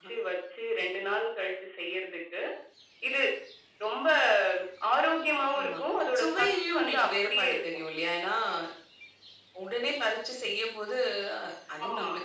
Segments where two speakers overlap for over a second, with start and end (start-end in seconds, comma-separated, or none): 6.2-7.6